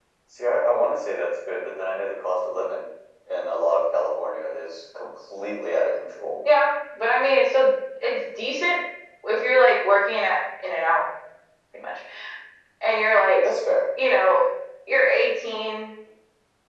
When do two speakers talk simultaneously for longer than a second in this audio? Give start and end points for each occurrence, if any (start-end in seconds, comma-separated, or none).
none